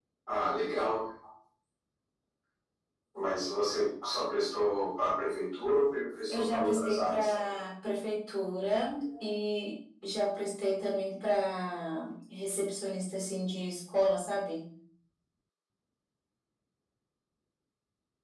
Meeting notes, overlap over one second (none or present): present